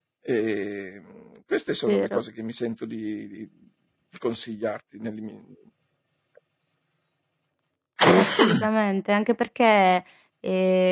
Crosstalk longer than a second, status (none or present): none